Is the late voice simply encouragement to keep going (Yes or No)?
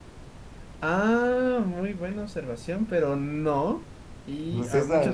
Yes